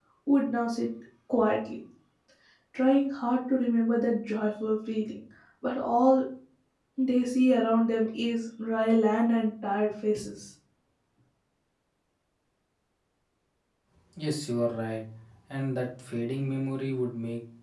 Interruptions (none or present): none